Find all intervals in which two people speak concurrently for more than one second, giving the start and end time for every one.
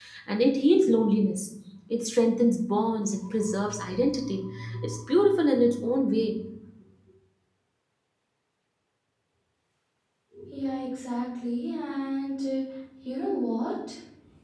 none

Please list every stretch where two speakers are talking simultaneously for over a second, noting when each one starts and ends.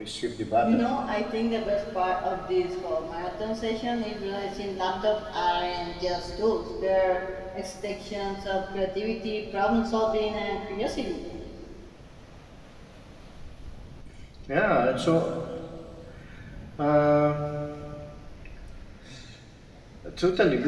none

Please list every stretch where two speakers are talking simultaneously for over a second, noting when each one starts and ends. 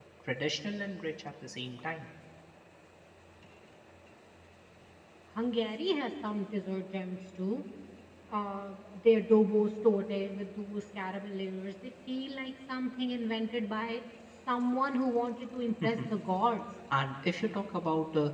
none

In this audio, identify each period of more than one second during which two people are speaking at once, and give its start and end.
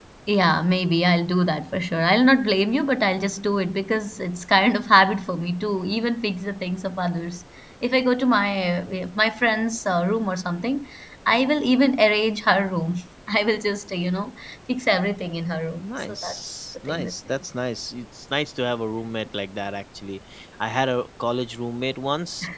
15.8-17.1

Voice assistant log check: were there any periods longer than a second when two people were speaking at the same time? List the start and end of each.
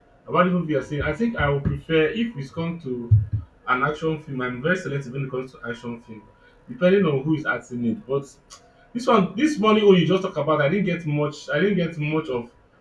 none

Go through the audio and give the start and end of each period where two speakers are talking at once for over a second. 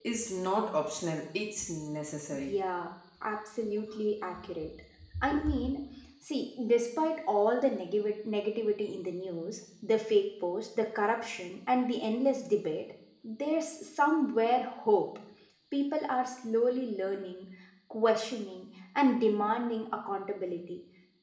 none

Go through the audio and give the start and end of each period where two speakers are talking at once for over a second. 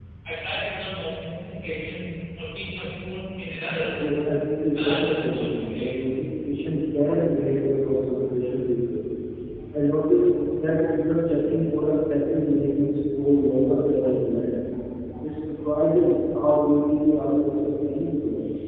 4.7-5.9

